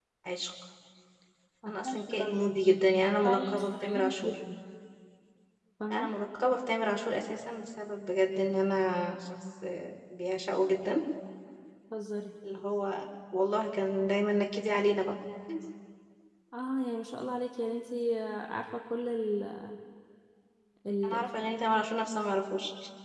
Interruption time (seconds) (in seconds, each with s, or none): 1.7 s